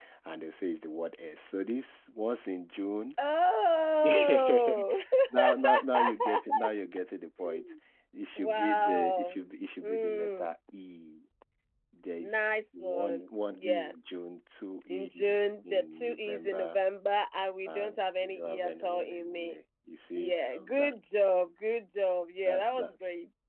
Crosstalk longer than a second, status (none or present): present